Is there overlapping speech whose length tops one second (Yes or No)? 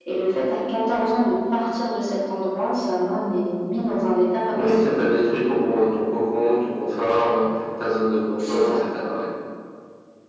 No